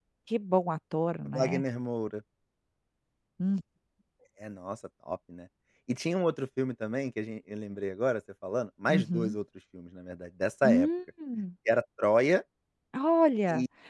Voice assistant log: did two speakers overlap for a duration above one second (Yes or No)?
No